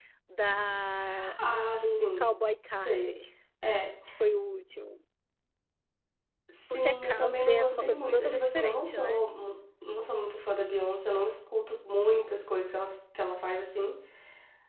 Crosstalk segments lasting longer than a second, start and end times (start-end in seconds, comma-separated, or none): 6.7-9.2